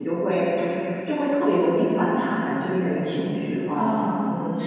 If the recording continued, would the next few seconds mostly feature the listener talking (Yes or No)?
Yes